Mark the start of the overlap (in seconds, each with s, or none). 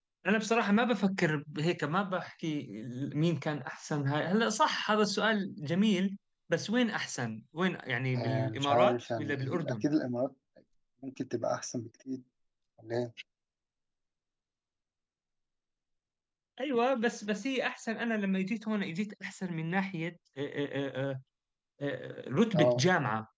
8.1 s